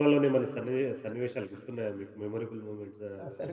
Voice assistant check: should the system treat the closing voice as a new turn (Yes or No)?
Yes